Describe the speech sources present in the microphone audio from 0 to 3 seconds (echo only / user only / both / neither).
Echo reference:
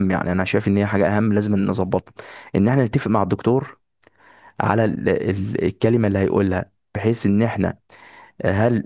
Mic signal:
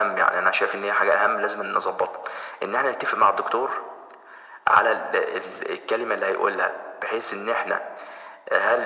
echo only